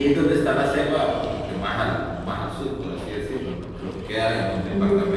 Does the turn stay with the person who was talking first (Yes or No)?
Yes